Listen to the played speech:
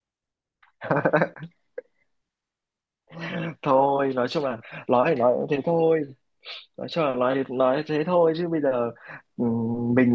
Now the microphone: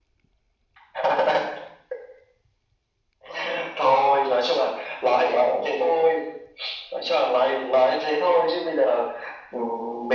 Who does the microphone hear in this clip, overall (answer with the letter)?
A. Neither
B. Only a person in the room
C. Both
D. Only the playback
D